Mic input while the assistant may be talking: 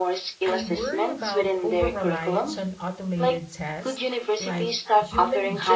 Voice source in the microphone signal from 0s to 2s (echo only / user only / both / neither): both